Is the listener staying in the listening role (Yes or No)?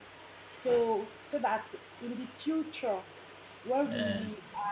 Yes